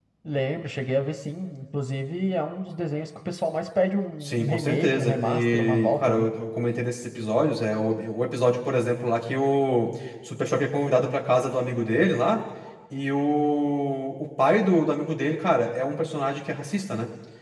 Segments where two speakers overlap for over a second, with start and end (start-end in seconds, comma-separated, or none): 4.2-6.3